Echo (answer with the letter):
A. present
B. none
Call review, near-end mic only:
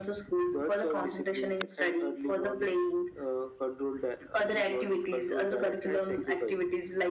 A